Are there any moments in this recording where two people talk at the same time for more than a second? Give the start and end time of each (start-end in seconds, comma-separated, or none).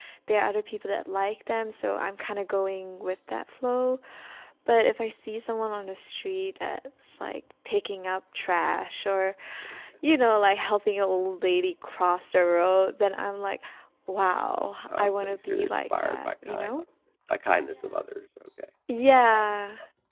15.0-16.8